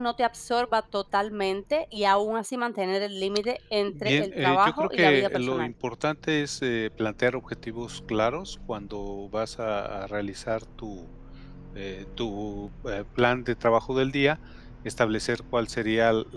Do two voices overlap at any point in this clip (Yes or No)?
Yes